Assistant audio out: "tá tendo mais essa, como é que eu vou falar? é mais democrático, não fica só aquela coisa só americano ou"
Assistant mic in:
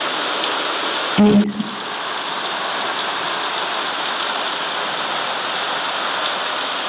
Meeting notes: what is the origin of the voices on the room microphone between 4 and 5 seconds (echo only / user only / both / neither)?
neither